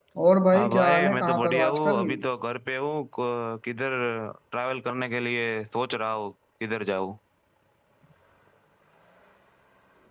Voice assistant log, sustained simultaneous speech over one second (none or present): present